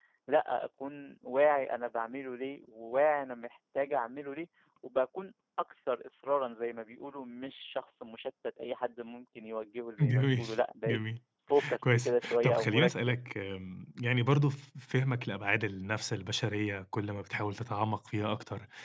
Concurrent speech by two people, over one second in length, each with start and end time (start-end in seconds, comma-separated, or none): 11.8-13.2